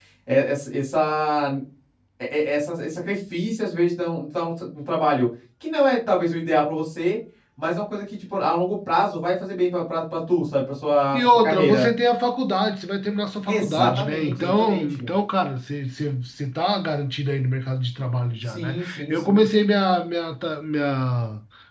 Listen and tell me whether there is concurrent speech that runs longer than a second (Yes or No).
Yes